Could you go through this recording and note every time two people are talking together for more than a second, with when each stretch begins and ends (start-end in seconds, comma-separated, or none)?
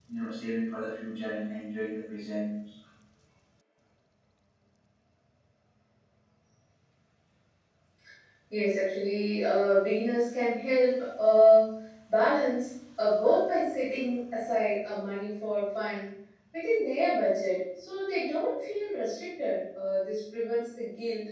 none